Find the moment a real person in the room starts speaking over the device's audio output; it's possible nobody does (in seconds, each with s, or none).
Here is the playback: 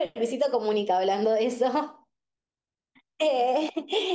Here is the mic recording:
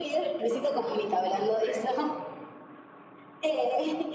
none